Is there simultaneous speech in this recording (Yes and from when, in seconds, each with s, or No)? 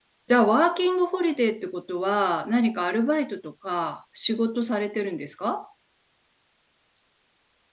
No